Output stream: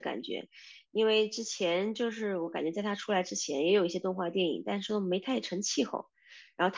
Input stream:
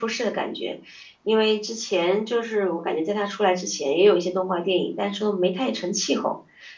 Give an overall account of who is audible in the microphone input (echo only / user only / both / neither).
echo only